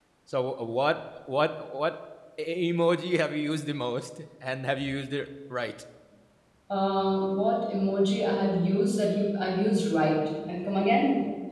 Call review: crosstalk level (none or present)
none